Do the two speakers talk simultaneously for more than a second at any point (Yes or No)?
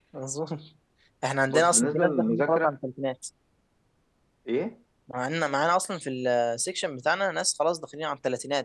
Yes